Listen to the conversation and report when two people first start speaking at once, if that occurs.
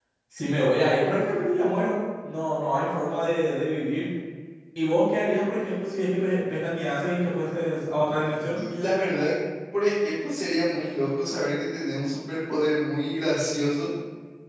none

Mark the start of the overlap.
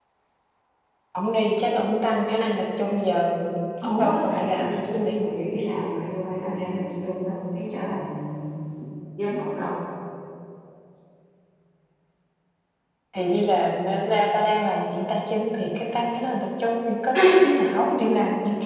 4 s

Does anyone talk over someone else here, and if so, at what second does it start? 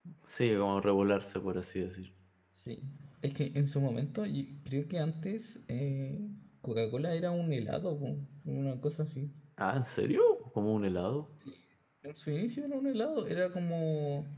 none

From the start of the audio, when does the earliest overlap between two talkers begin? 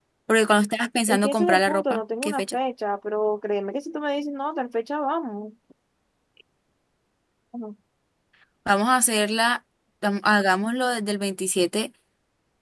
1 s

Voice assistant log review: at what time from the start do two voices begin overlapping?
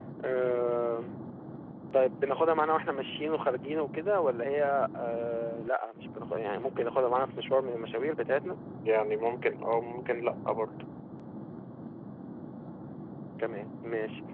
none

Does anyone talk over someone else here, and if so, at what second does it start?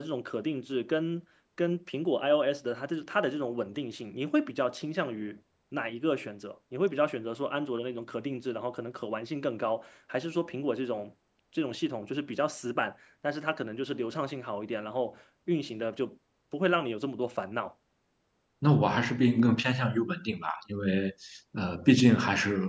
none

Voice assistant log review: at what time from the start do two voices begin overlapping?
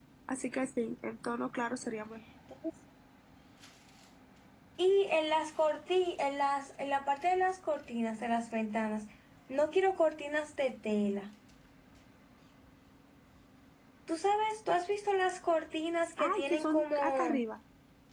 16 s

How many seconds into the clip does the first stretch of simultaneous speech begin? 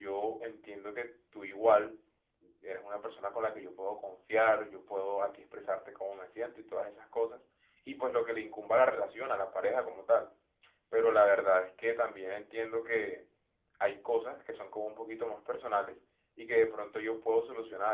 none

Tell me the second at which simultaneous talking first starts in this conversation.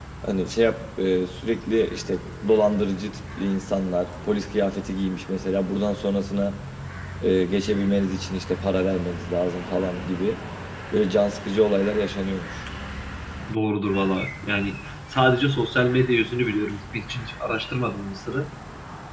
none

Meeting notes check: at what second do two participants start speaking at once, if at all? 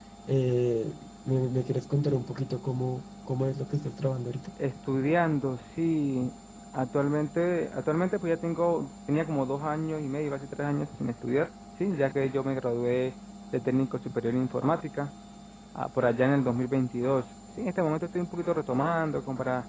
none

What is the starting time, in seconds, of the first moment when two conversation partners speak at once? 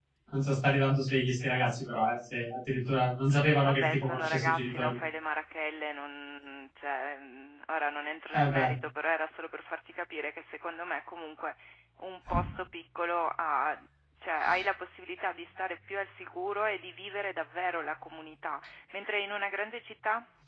4 s

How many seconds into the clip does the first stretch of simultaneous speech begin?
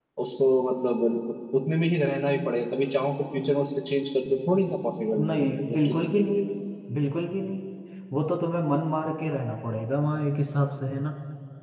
5 s

